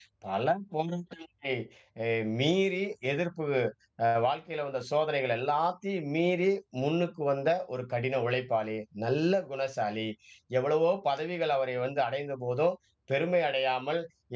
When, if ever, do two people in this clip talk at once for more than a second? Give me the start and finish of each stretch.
none

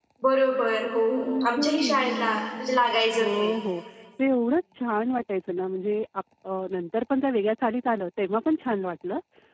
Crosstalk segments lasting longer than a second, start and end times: 1.5-2.8

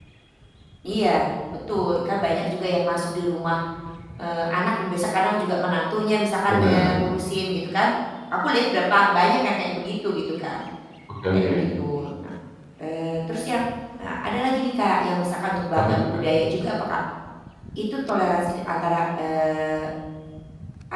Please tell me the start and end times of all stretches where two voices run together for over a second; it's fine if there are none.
none

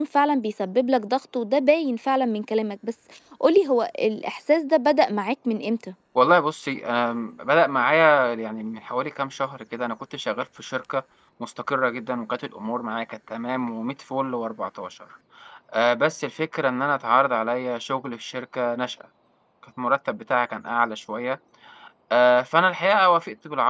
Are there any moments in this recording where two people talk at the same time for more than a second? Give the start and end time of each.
none

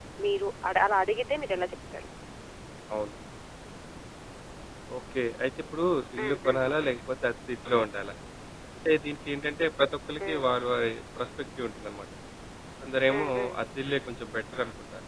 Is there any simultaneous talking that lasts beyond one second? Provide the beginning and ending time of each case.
none

